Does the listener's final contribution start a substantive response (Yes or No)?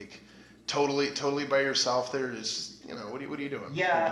Yes